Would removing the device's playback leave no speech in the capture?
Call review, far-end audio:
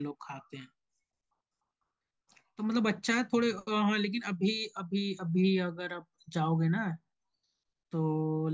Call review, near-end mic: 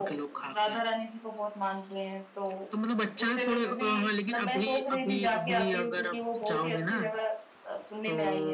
No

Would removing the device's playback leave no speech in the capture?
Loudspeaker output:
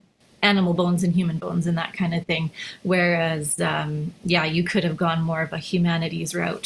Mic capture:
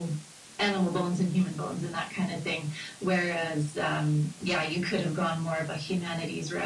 Yes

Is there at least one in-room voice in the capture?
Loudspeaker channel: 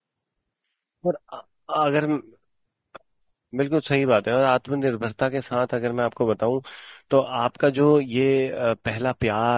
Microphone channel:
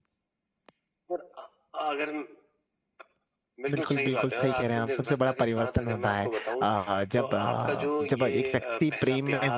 Yes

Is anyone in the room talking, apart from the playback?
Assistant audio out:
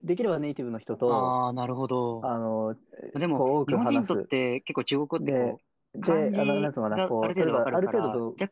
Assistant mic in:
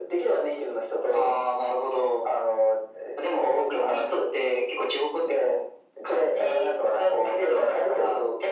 No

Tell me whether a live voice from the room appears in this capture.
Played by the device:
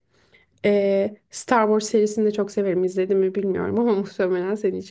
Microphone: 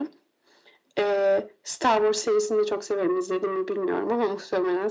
No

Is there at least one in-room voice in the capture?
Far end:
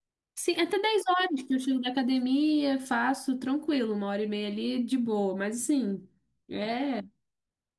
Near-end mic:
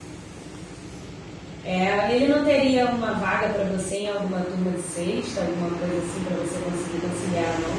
Yes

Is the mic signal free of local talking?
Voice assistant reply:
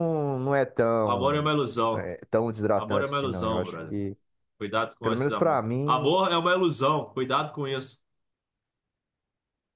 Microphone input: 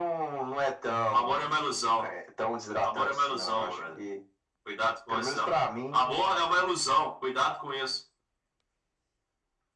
Yes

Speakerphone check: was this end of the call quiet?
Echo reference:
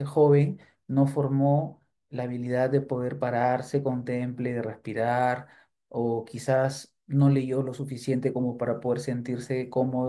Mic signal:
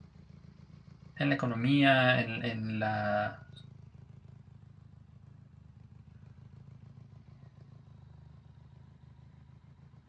No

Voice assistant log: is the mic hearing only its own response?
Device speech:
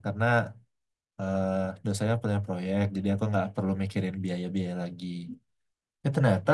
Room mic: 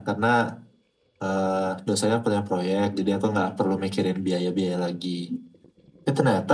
Yes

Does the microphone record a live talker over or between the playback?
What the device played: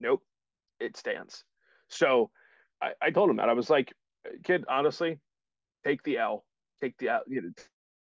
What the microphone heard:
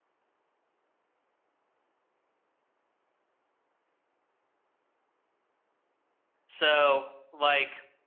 Yes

